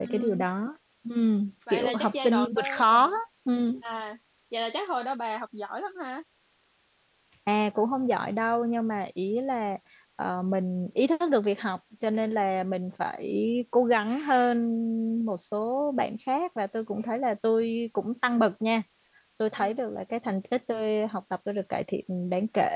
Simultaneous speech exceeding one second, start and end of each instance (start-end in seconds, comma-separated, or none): 1.7-3.2